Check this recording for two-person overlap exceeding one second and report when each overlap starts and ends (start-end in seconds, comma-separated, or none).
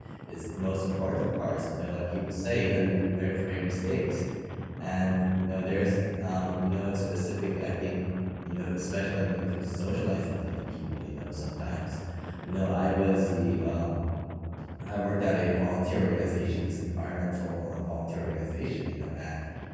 none